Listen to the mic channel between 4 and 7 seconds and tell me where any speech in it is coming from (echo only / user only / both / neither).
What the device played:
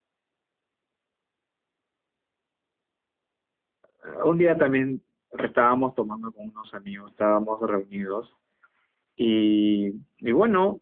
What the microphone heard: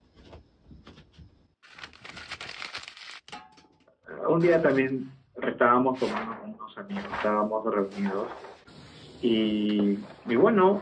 echo only